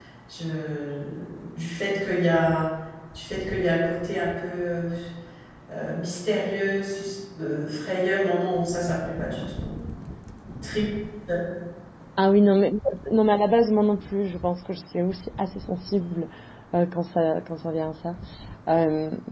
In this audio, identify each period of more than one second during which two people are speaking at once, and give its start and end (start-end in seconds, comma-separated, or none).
none